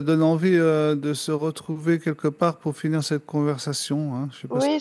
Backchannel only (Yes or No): No